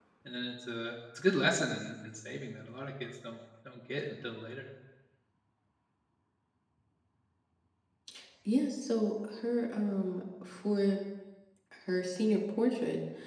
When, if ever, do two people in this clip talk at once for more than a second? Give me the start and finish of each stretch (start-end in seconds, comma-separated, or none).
none